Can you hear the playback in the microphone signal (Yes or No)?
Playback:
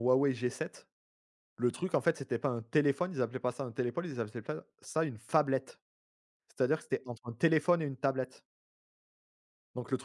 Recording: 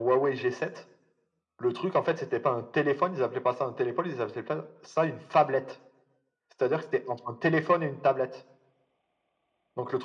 Yes